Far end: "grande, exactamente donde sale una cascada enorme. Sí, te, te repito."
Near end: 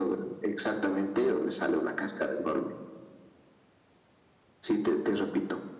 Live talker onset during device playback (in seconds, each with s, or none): none